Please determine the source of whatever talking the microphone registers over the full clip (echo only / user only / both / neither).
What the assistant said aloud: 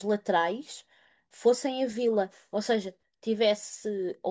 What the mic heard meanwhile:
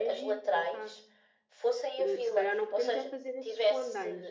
both